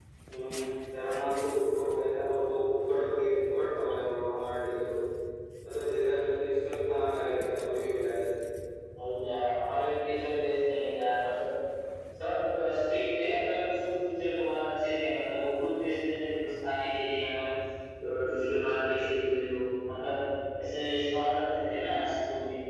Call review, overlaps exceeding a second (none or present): none